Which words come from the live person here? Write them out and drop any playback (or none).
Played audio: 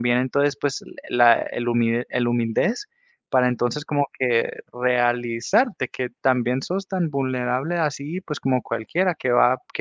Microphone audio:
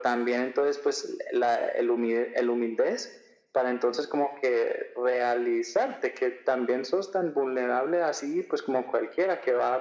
none